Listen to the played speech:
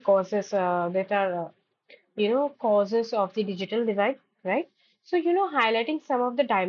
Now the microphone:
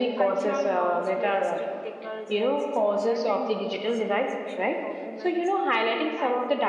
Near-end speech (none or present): present